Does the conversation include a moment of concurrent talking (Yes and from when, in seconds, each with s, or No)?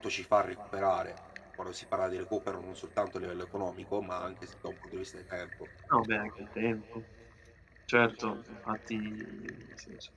No